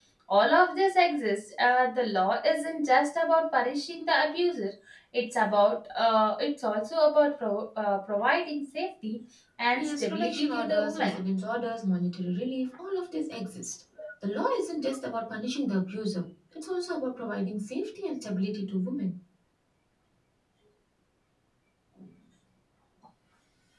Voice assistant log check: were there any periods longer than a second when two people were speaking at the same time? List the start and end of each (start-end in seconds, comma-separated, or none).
9.7-11.2